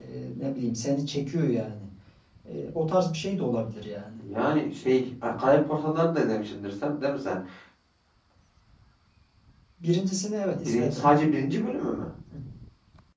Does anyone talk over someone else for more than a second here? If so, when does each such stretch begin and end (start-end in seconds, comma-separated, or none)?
none